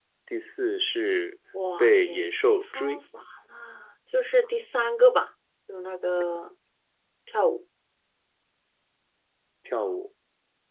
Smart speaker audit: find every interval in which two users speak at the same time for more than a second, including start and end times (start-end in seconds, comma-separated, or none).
1.8-3.0